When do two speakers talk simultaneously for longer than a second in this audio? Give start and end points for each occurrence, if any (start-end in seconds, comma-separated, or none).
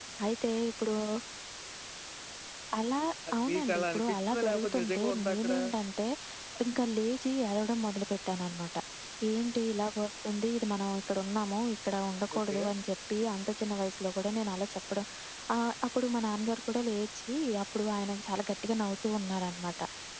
3.4-5.5